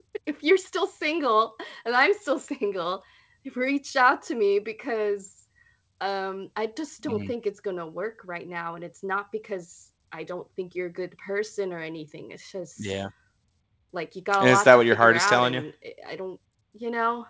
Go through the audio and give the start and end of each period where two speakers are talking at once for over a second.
14.4-15.6

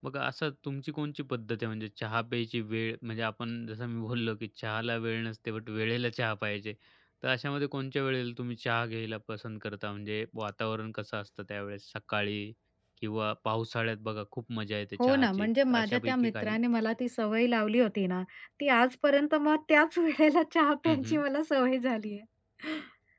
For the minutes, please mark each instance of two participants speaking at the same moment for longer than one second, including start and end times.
15.0-16.6

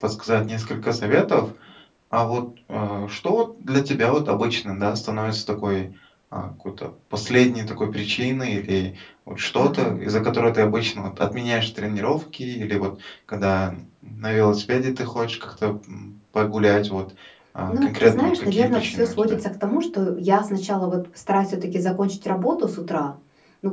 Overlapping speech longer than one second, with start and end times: 17.7-19.4

